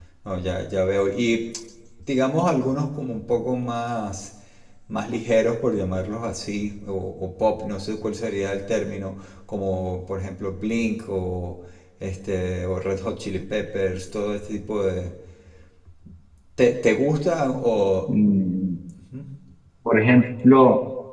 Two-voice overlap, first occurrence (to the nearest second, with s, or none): none